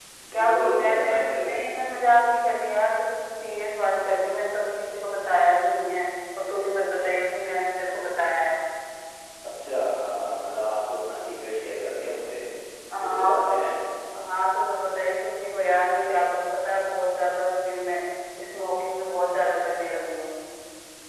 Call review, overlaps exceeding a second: present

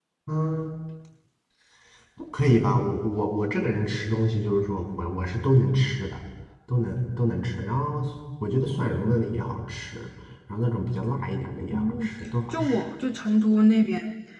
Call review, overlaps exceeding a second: none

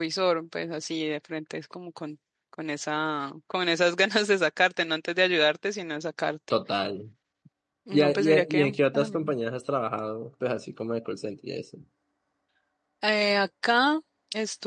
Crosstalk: present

